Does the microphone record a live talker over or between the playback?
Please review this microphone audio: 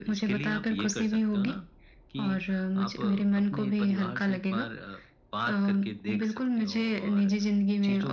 No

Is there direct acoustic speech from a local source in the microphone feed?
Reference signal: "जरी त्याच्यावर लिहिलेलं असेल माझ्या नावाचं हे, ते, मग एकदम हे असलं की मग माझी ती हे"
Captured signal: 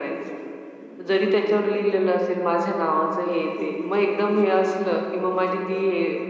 Yes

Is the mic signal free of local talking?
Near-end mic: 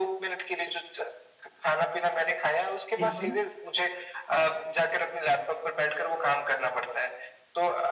No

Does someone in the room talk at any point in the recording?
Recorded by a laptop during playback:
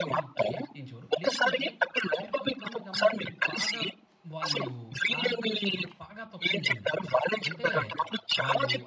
Yes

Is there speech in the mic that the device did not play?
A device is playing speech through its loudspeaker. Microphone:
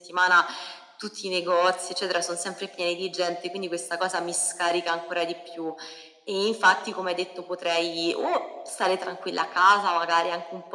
No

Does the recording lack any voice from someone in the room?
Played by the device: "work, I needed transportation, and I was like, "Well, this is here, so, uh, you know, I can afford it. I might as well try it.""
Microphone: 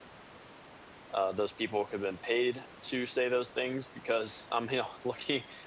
No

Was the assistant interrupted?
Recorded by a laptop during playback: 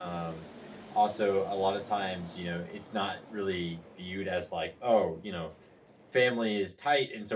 Yes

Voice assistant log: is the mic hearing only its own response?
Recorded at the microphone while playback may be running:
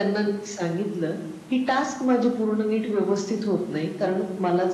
Yes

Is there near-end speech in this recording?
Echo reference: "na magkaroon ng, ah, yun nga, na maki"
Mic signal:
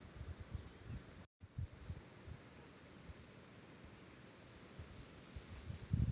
No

